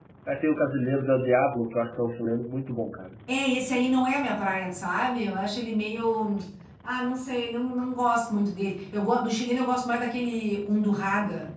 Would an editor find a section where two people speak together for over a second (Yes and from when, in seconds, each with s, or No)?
No